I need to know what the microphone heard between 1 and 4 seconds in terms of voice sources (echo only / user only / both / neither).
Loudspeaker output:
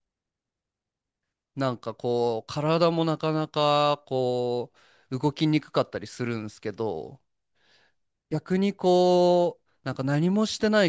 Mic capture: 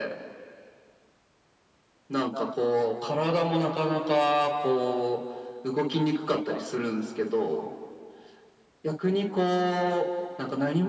echo only